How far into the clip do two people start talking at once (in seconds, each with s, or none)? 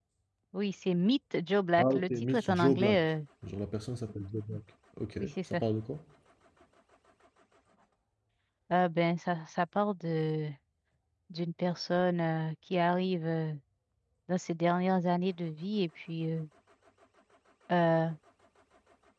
1.8 s